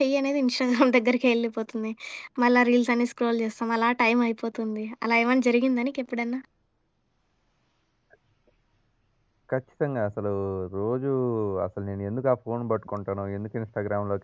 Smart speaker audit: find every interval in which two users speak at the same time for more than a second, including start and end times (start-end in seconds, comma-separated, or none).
none